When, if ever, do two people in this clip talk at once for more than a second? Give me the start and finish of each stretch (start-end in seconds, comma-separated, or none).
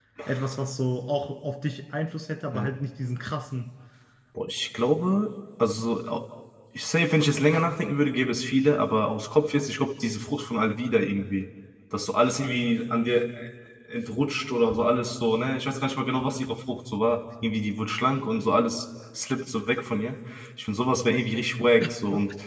none